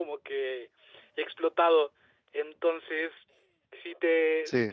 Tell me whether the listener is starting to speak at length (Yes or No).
No